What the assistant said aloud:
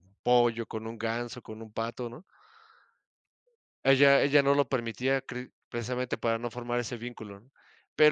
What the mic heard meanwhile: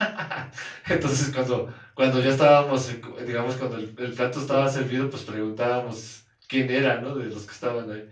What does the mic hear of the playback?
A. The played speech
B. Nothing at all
B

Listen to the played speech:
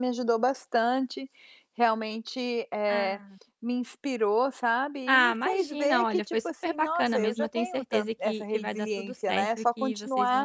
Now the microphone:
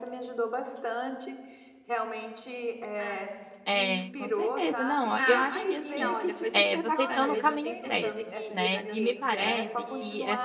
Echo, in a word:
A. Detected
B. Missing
A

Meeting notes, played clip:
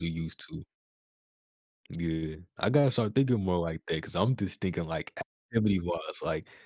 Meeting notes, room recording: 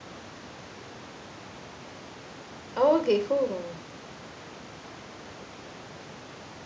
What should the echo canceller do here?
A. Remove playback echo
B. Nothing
B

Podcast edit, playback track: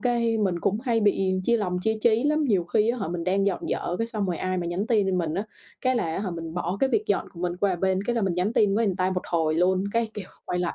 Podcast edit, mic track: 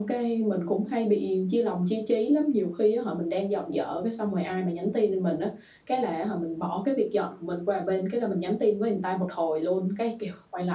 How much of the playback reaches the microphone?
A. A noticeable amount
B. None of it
A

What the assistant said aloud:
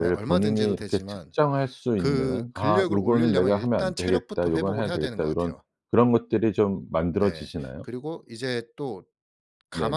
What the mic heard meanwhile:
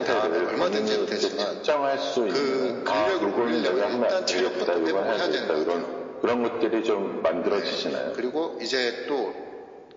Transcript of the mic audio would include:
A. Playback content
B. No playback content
A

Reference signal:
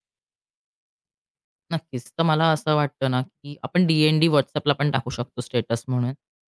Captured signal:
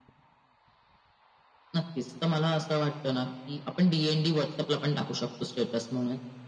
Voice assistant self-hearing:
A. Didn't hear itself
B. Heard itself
B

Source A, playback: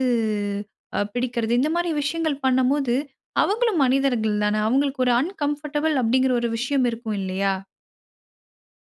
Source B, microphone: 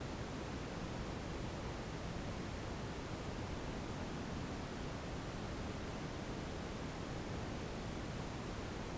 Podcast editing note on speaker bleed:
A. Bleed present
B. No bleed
B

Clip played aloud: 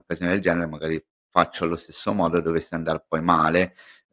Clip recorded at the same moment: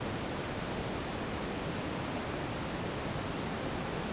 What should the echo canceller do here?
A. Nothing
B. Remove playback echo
A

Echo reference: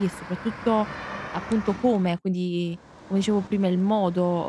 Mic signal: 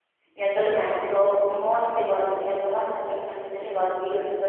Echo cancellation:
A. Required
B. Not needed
B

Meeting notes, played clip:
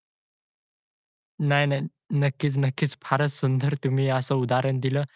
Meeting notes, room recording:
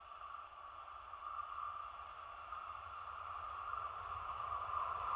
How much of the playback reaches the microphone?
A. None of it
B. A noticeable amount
A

